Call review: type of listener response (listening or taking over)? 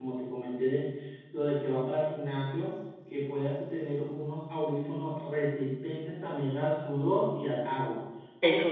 listening